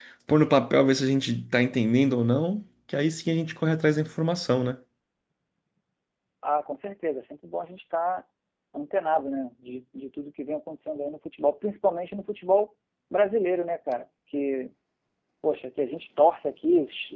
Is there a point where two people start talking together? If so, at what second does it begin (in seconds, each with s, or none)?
none